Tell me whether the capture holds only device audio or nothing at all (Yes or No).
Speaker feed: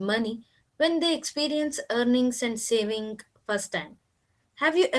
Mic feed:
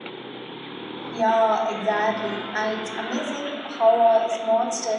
No